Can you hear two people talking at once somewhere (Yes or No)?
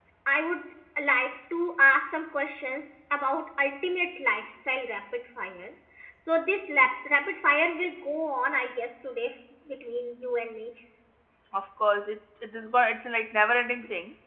No